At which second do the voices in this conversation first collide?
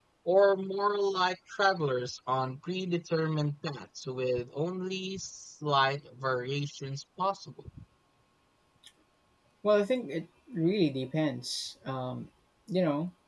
none

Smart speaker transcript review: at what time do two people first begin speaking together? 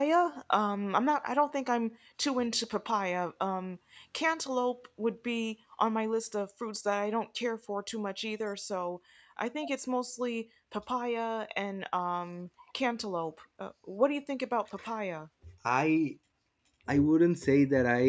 none

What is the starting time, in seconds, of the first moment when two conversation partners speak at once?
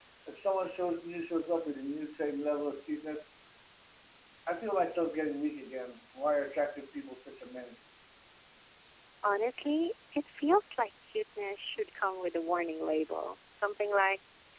none

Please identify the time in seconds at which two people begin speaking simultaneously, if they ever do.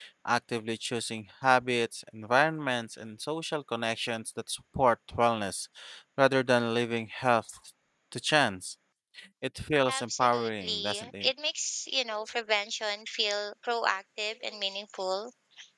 10 s

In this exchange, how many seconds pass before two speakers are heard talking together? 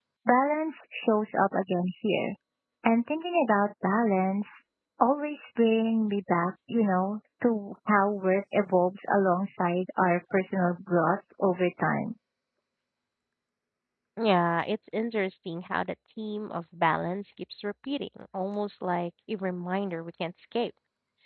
none

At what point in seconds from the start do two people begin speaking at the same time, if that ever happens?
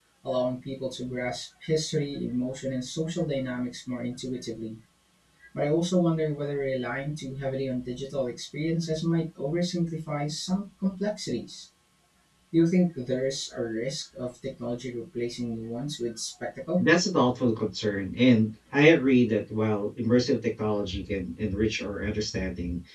none

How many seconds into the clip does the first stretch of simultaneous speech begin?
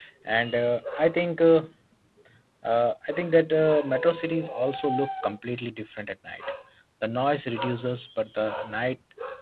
none

